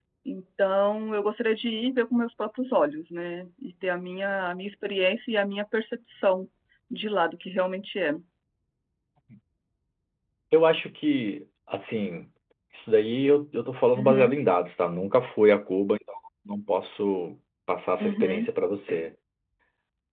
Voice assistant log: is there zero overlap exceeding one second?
Yes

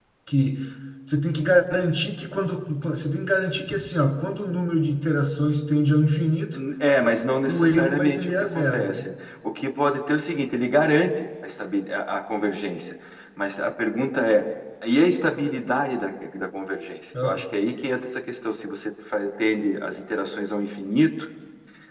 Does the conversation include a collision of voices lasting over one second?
Yes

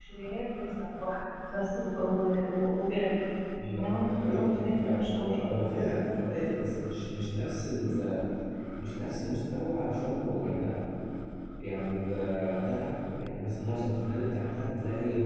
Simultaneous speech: Yes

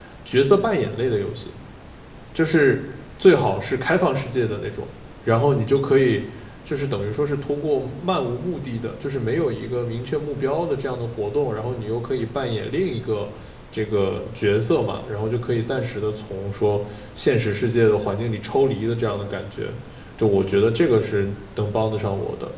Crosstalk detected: No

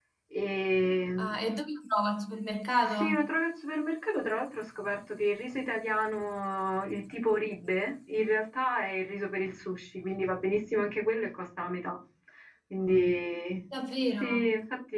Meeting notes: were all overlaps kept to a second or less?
Yes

